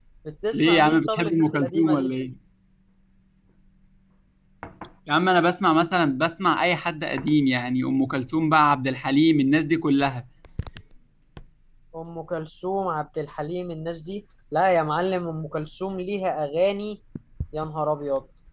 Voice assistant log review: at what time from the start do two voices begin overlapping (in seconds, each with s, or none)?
0.5 s